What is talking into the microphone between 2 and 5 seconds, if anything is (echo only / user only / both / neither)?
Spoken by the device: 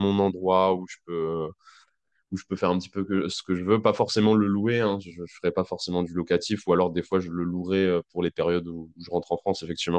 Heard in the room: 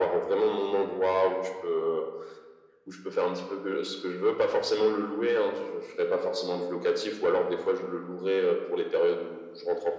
echo only